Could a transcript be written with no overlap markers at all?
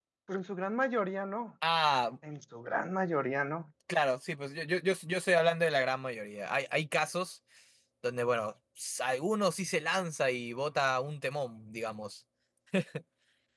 Yes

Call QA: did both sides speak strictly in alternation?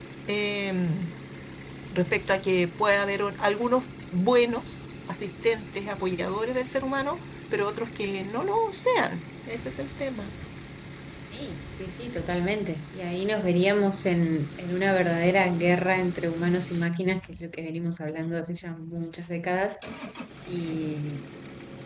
Yes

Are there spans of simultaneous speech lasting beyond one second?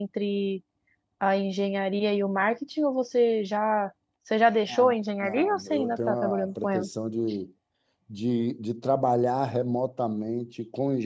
Yes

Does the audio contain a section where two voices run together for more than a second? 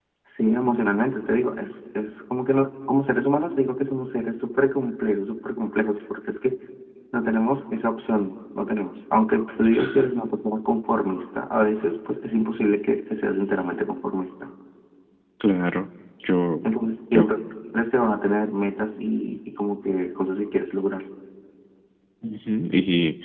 No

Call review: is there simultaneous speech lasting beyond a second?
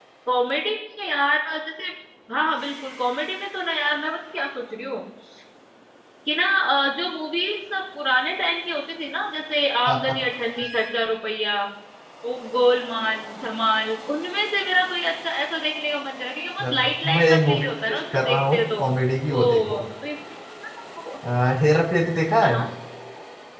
Yes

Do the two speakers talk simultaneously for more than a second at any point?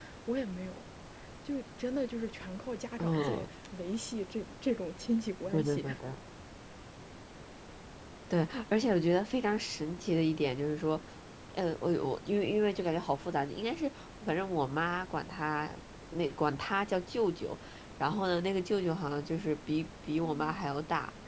No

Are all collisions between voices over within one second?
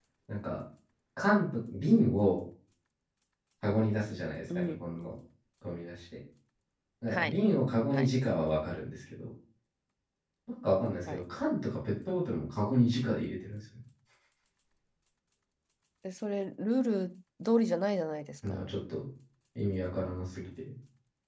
Yes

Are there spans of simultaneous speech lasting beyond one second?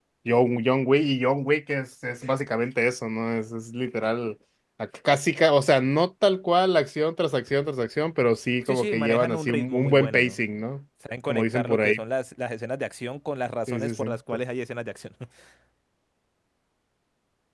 Yes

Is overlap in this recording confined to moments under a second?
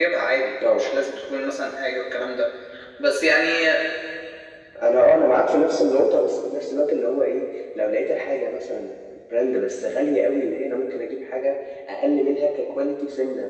Yes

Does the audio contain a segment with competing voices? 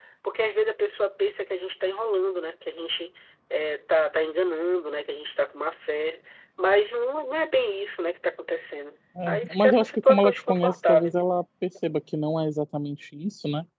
Yes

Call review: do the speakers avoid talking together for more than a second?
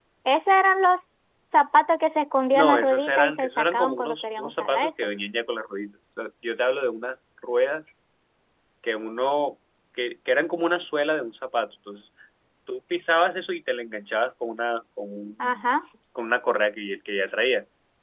No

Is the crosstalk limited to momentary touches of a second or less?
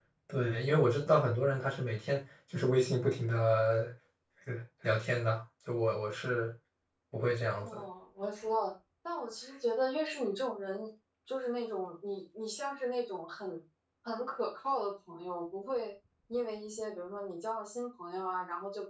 Yes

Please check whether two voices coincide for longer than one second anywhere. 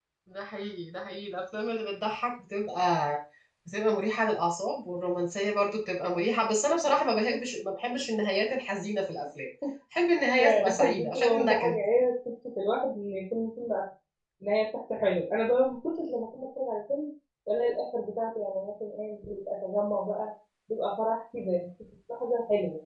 Yes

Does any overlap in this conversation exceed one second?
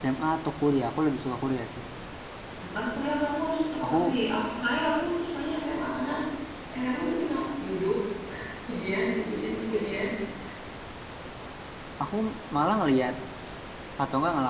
No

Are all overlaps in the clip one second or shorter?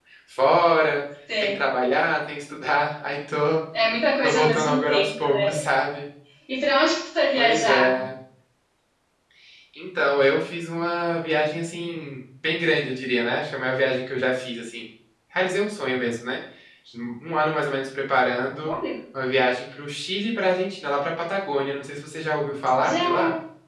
No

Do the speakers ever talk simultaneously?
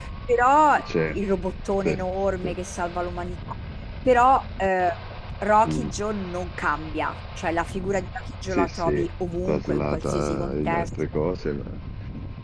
Yes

